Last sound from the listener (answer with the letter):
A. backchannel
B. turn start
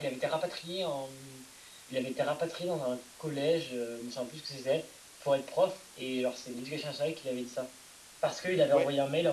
A